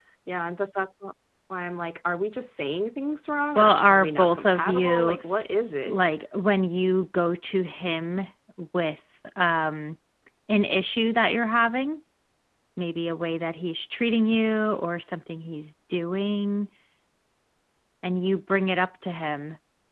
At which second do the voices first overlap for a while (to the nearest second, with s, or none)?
4 s